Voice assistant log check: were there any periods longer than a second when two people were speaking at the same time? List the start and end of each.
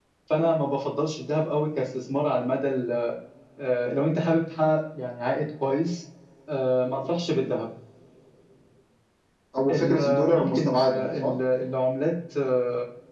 9.7-11.3

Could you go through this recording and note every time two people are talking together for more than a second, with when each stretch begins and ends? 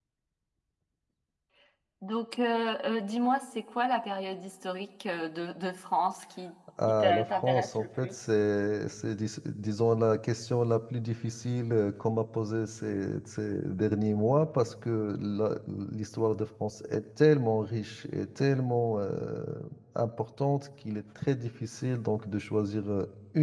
6.9-8.2

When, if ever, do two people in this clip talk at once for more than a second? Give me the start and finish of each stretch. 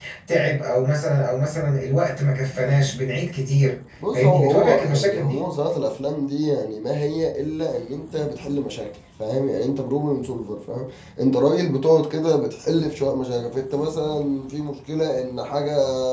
4.1-5.4

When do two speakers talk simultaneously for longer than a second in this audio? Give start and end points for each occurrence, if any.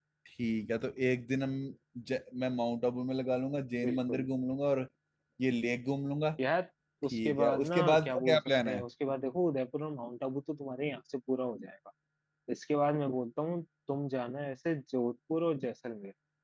7.1-8.8

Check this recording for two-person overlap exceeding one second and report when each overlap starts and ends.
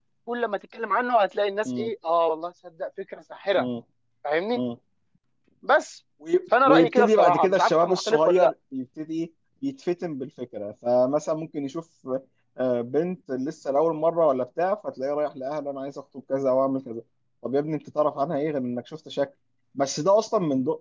6.7-8.5

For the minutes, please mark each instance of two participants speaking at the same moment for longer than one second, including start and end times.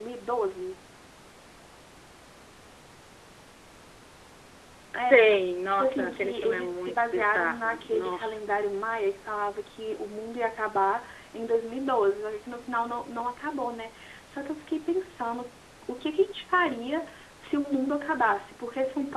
5.7-8.2

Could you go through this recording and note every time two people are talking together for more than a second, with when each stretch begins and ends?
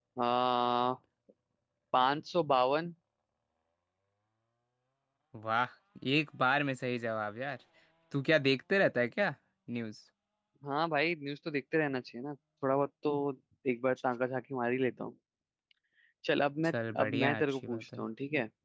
16.6-18.0

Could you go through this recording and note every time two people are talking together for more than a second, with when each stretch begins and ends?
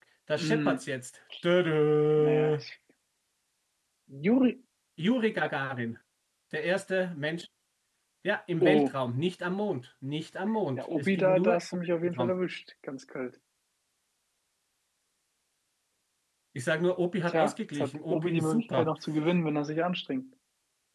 10.7-12.3, 17.3-18.9

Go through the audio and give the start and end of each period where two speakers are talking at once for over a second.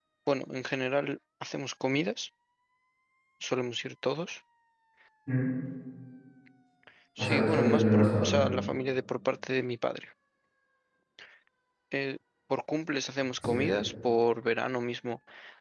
7.2-8.4

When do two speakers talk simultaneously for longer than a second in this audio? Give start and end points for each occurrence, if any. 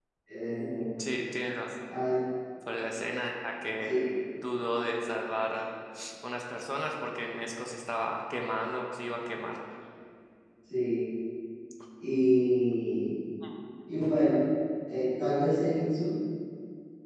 none

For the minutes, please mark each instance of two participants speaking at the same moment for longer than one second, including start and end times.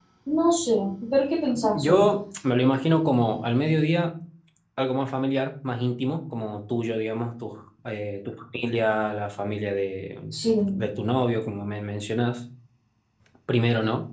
none

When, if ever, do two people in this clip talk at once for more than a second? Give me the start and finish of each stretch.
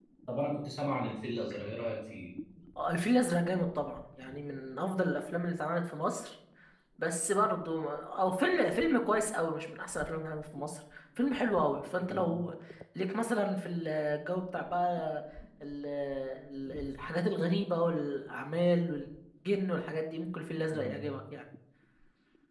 none

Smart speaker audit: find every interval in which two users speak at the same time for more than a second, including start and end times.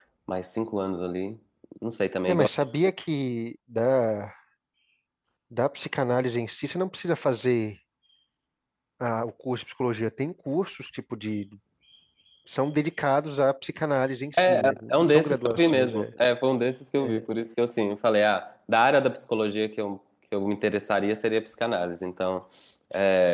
14.3-16.1

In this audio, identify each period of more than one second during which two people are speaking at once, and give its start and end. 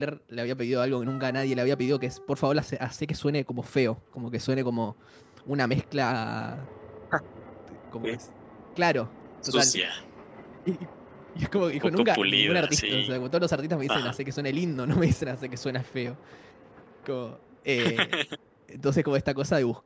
12.0-13.2

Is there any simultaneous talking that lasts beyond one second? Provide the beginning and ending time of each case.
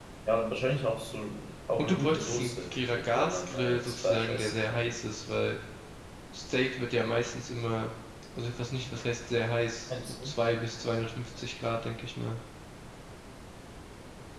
1.8-4.8

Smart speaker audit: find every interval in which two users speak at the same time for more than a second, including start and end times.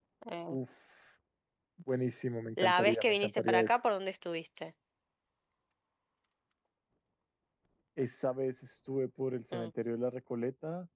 2.6-3.8

